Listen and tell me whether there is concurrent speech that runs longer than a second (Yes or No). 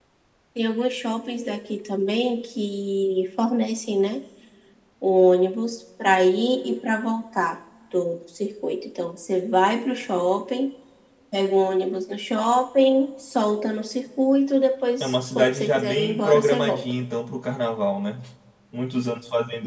Yes